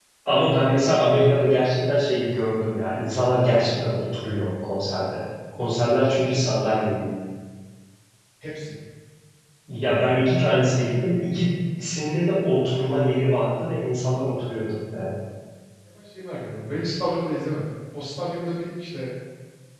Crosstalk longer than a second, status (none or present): none